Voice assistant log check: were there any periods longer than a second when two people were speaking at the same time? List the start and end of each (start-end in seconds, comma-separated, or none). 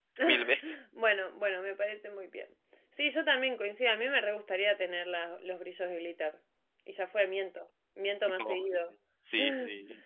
none